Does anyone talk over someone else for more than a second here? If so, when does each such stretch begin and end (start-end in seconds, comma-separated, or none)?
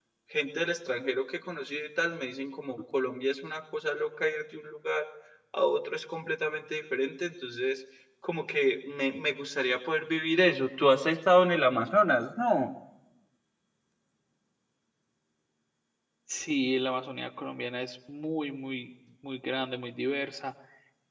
none